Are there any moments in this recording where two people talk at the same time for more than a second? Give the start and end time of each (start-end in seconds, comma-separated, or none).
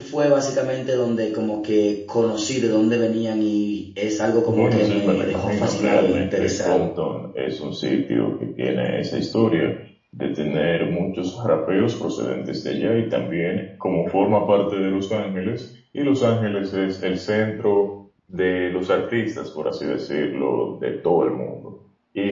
4.5-6.9